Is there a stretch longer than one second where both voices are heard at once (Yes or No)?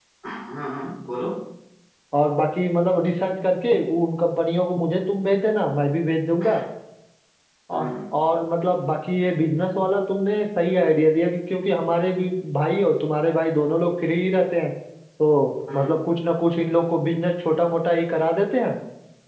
No